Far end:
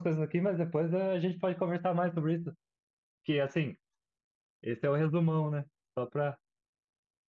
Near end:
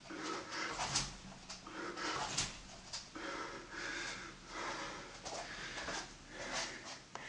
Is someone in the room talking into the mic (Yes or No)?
No